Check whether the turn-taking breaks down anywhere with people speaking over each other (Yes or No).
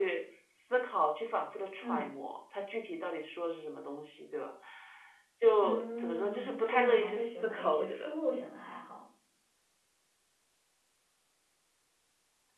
Yes